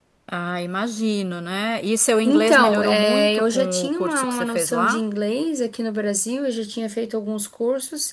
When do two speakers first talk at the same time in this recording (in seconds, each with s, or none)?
2.2 s